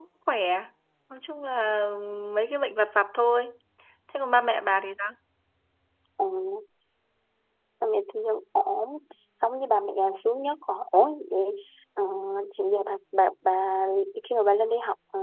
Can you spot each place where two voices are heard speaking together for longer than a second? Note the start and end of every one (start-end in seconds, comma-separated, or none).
none